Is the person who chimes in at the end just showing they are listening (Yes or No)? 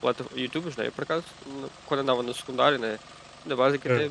Yes